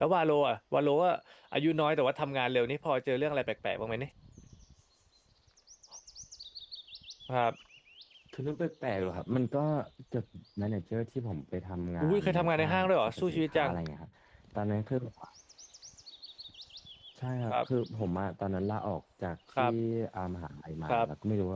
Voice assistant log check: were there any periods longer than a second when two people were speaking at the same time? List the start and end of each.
12.0-13.7

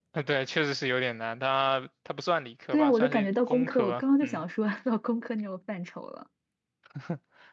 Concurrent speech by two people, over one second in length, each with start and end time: 2.7-4.4

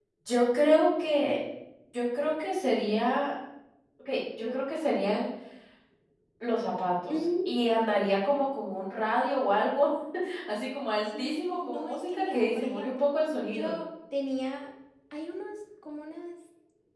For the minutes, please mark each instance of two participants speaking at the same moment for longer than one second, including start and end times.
11.2-13.1

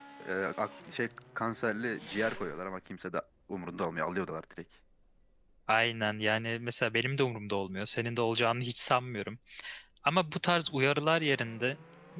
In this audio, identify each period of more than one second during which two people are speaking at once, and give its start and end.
none

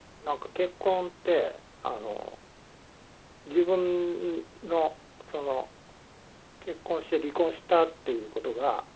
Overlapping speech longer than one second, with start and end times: none

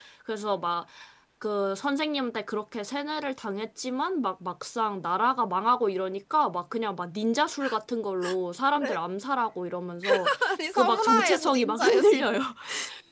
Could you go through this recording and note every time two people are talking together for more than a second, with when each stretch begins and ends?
10.7-12.3

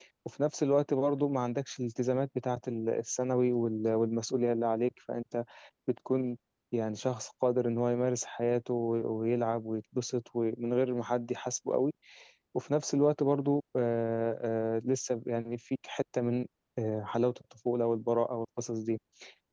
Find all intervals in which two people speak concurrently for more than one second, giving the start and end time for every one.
none

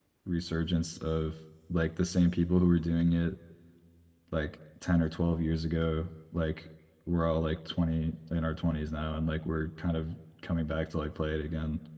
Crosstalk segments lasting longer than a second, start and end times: none

